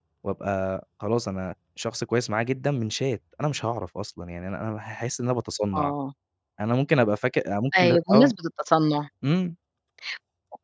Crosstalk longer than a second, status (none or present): none